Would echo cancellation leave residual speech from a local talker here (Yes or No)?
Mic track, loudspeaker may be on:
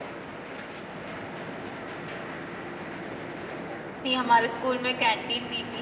Yes